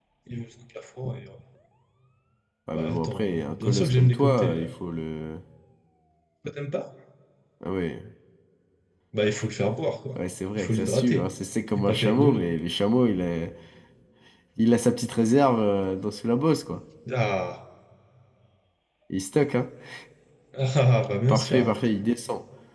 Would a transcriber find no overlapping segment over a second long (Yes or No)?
No